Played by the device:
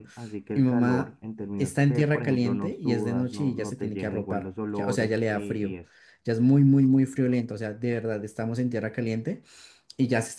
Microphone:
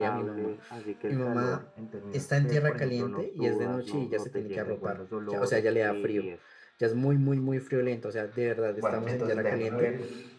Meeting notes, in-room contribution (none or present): present